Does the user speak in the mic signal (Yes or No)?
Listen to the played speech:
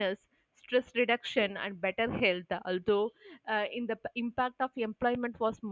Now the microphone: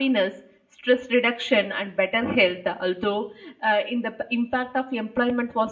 No